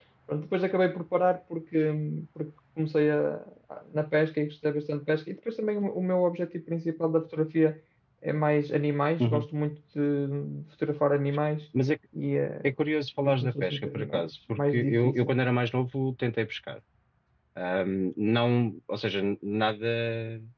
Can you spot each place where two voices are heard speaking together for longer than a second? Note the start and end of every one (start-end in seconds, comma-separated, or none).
13.2-15.4